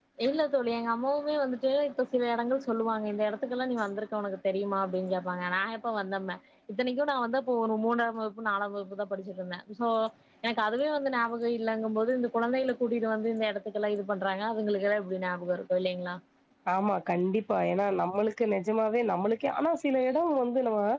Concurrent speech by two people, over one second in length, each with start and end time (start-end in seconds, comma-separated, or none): none